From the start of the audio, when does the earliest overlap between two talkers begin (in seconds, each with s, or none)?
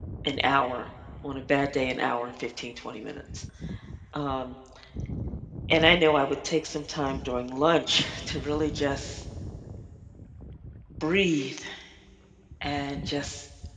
none